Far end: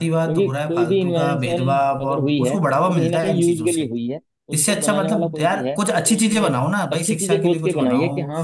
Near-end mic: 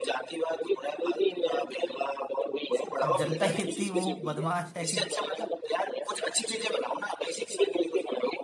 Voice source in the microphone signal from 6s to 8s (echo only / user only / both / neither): echo only